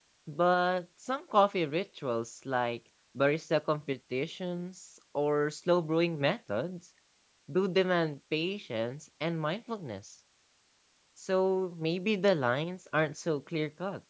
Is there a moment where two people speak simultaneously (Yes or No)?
No